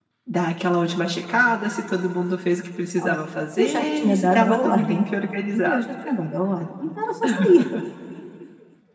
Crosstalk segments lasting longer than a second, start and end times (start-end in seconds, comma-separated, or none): 3.6-5.1